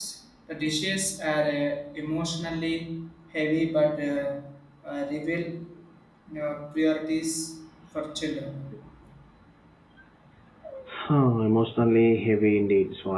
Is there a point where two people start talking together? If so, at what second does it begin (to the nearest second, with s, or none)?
none